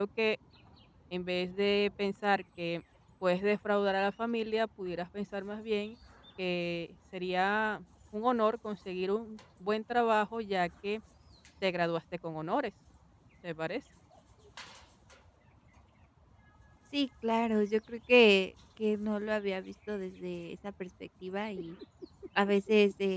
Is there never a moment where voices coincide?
Yes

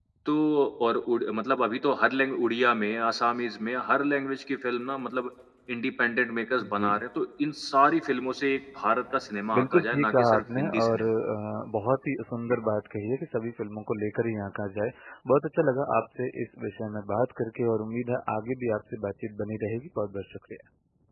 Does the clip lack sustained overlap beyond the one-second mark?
No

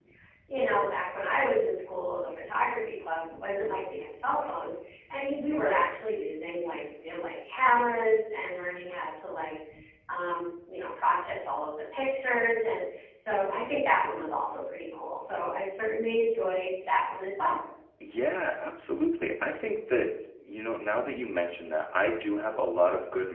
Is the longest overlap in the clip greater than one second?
No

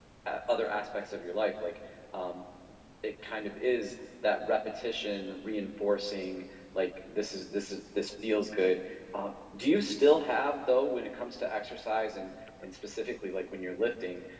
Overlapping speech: No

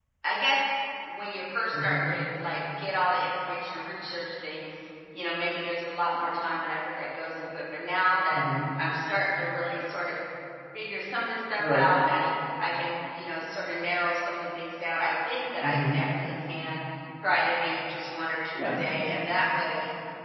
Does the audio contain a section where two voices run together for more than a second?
No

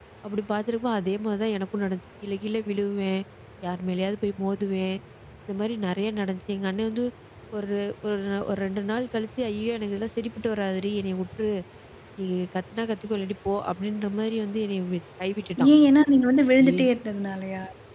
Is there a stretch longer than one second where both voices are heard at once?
No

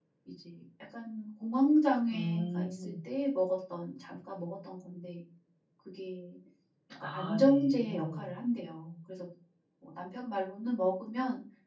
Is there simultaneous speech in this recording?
Yes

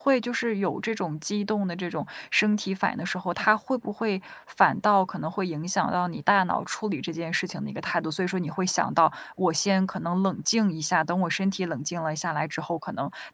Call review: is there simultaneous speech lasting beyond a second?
No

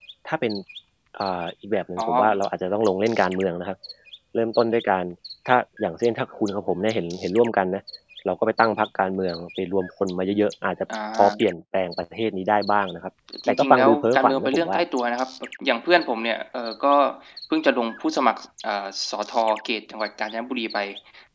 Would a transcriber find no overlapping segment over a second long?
No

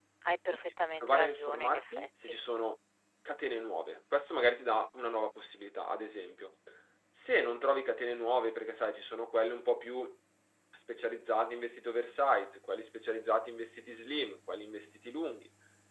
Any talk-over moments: Yes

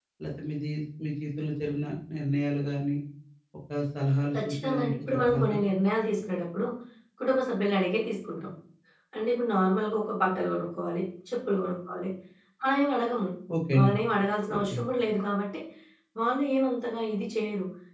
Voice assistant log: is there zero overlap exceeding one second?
No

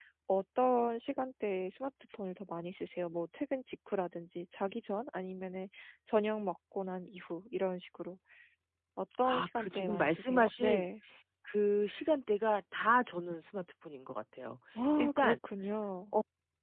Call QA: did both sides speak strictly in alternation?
No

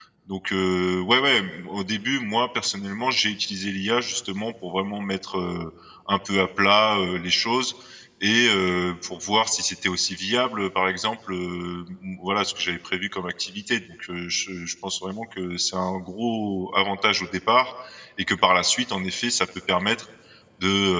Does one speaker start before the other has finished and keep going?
No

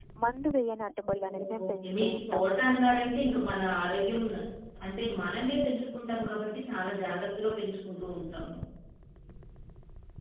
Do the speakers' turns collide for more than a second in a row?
Yes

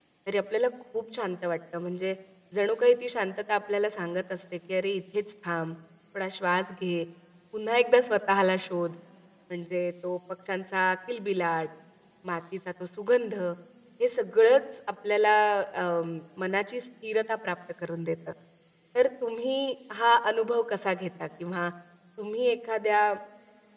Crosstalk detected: No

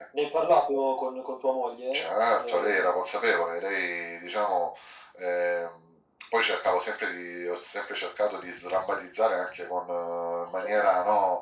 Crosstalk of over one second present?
No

